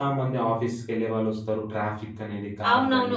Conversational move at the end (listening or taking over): taking over